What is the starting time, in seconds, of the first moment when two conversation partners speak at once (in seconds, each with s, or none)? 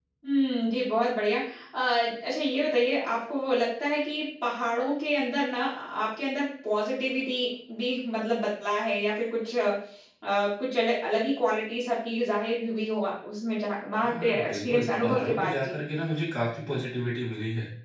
14.0 s